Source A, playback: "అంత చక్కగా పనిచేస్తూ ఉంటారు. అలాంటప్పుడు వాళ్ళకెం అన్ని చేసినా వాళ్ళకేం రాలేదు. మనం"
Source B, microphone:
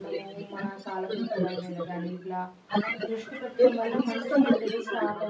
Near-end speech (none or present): present